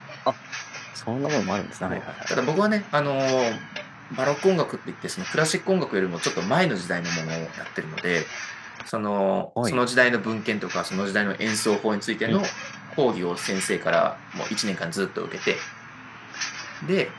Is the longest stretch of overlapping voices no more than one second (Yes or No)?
Yes